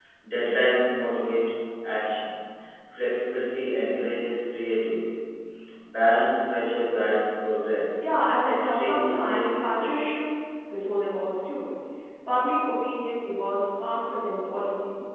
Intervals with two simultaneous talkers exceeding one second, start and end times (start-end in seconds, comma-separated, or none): 8.4-9.9